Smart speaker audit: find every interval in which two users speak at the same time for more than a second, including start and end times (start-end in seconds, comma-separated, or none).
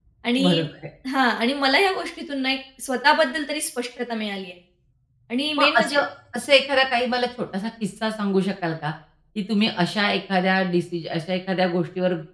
none